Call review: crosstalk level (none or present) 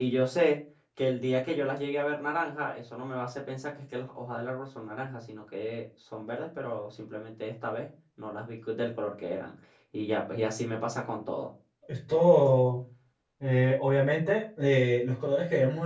none